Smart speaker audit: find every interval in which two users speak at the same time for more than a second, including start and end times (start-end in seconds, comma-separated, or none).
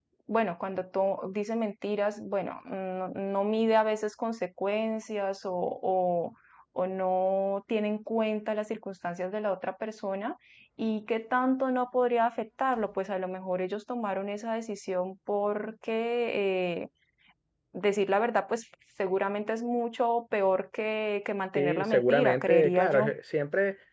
21.6-23.1